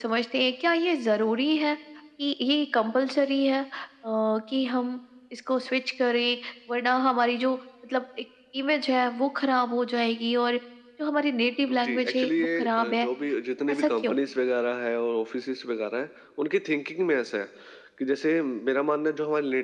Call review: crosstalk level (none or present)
present